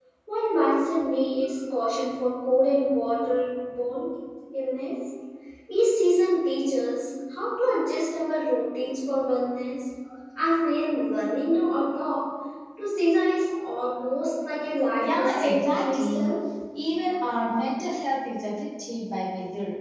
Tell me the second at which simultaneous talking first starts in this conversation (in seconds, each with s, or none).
15.0 s